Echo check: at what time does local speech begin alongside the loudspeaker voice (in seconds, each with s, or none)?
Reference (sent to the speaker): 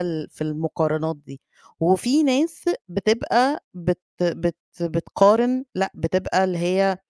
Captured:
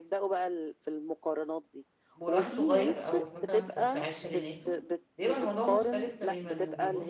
2.1 s